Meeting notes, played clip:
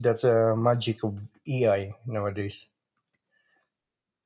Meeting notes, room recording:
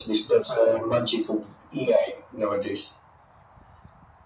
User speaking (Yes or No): No